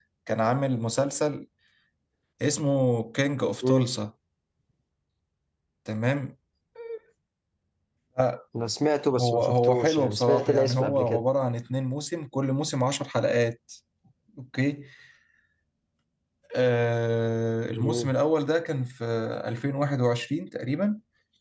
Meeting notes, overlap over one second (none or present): present